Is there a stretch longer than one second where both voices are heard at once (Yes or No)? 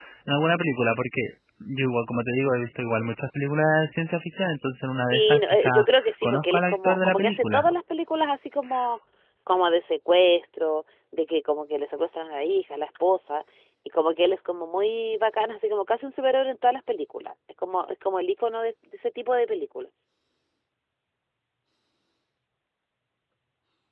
Yes